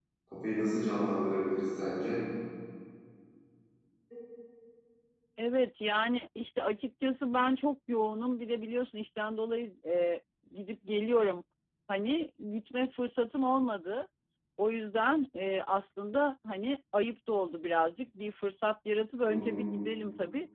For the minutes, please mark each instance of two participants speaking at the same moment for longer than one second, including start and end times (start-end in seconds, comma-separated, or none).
none